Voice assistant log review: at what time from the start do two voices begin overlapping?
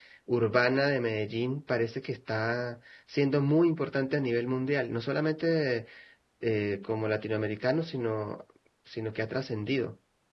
none

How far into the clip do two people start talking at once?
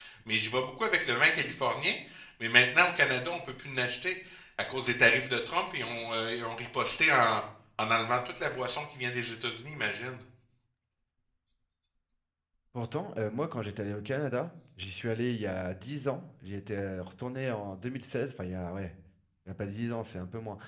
none

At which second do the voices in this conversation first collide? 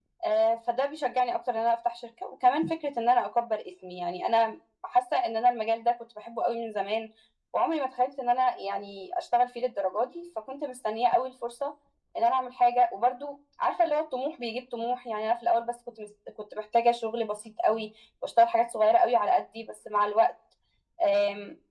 none

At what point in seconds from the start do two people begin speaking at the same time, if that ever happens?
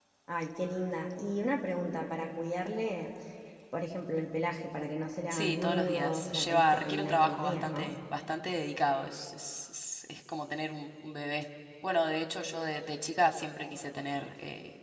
5 s

